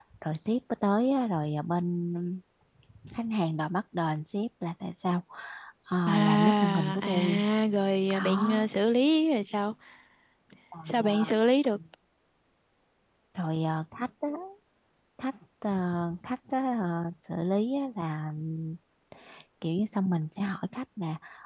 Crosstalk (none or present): present